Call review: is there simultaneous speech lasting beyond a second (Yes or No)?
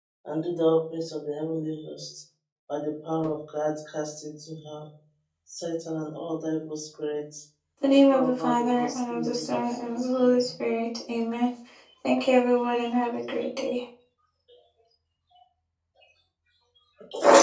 Yes